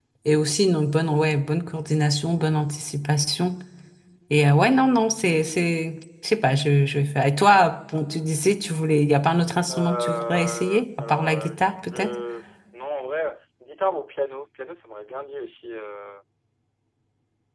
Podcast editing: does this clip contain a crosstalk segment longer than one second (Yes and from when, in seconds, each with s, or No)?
Yes, from 9.7 s